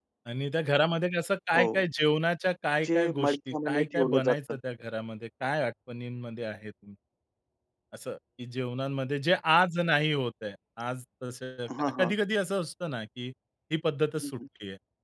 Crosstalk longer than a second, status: present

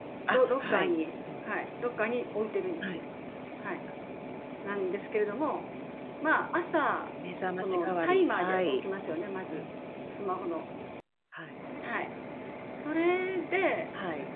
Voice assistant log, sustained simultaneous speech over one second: present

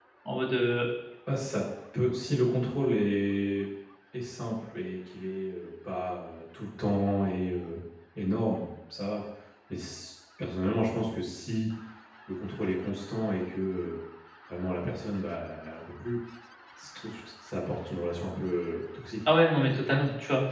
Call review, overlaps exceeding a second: none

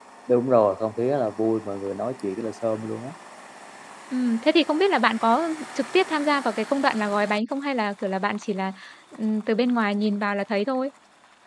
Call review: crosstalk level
none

